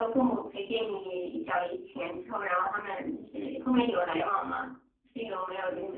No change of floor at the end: No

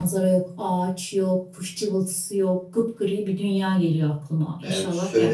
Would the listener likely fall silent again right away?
No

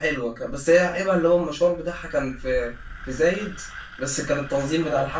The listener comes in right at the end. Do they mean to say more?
No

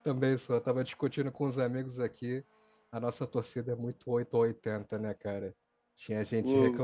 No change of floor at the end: Yes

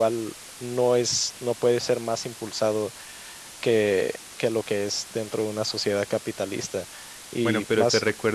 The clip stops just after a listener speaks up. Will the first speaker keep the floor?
No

